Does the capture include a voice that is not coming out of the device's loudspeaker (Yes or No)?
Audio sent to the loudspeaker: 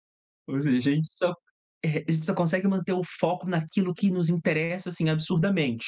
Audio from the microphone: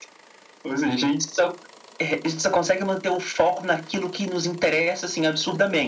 No